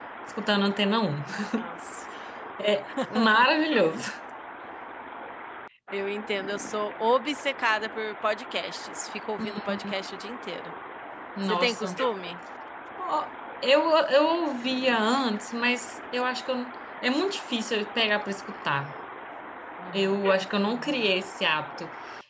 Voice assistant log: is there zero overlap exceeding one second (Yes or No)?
Yes